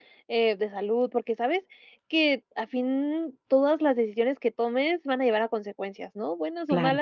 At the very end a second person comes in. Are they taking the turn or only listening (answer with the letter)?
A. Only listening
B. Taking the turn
A